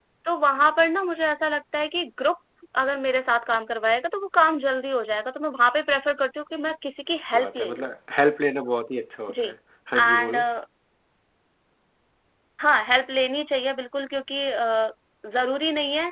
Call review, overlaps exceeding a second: none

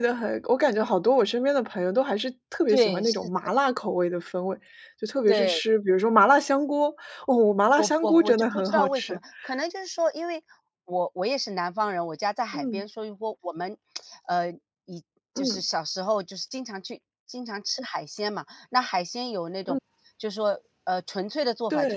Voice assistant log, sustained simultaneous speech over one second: present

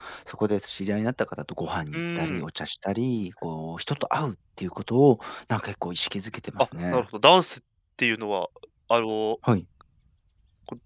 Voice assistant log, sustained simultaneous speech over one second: none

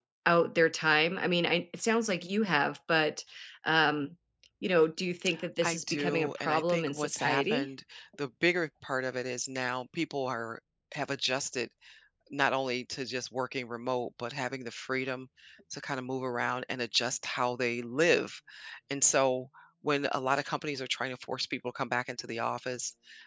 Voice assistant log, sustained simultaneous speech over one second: present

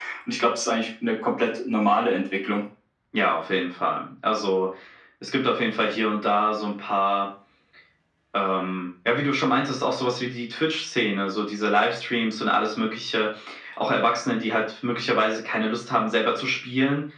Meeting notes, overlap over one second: none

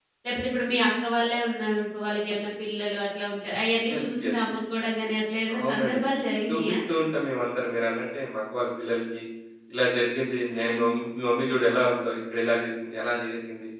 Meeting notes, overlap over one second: none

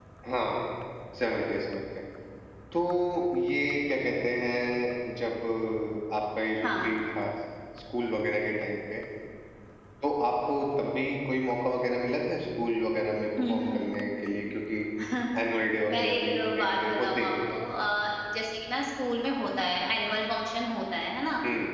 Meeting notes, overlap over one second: present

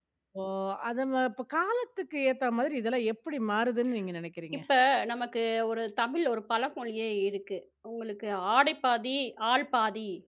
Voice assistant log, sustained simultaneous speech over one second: none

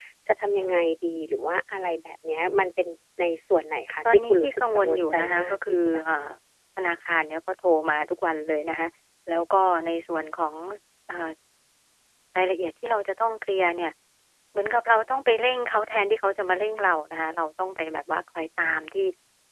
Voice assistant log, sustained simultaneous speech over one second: present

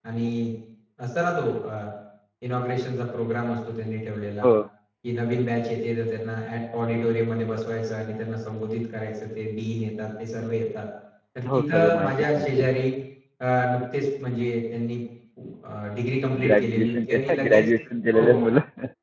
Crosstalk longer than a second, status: present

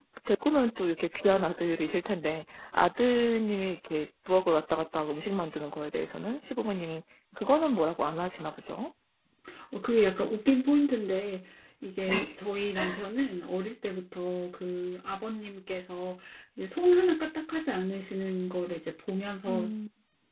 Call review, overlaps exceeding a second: none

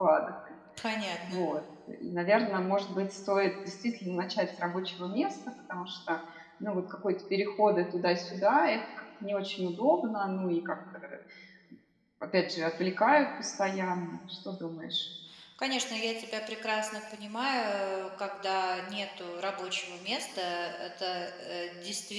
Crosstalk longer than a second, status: none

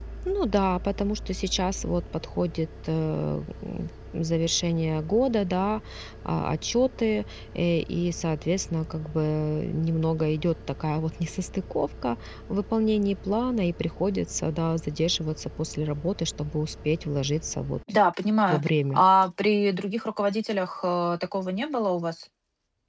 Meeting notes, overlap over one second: none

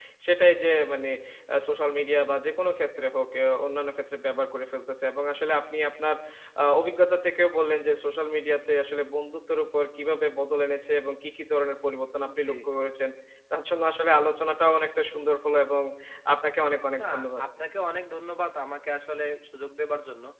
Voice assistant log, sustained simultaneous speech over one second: none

